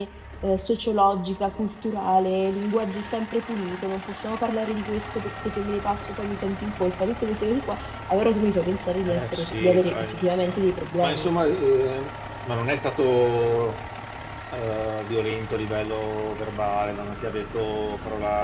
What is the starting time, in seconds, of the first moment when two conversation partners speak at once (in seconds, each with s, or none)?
9.1 s